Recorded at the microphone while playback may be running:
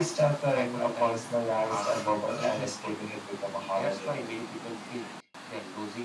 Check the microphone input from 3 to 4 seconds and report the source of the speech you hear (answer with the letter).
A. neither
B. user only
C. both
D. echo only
D